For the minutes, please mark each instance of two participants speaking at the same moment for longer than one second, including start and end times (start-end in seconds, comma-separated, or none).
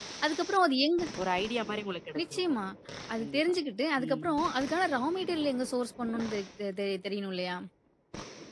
none